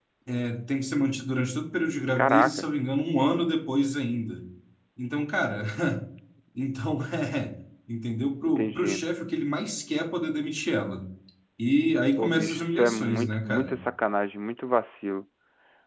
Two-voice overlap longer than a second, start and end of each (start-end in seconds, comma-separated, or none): 12.2-13.8